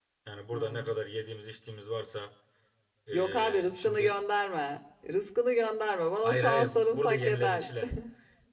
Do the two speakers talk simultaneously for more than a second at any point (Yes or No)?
Yes